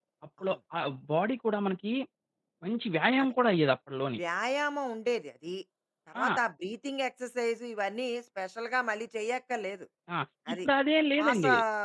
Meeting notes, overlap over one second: none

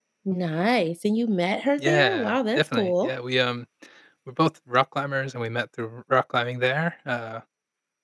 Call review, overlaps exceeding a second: present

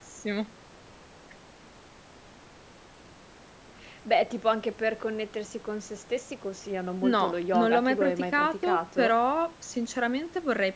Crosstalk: present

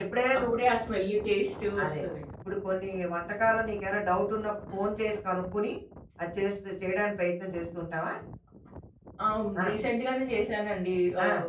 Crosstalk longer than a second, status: none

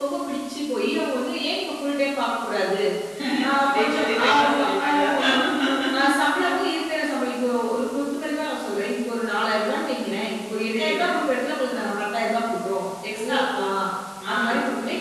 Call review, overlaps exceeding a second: present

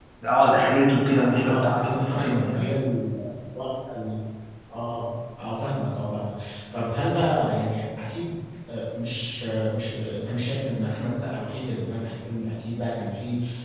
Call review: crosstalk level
present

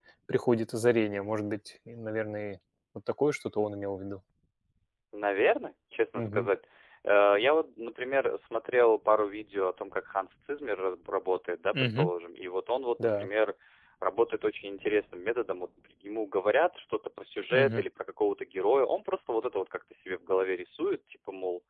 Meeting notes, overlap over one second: none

